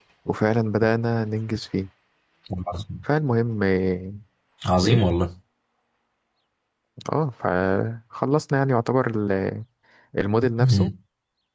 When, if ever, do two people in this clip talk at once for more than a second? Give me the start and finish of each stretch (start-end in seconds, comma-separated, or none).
none